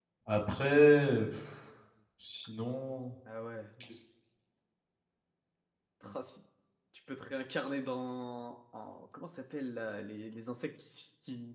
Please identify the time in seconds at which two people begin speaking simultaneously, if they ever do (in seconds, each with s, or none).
none